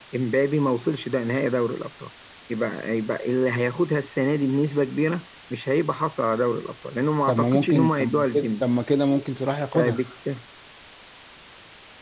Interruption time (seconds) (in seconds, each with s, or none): 7.3 s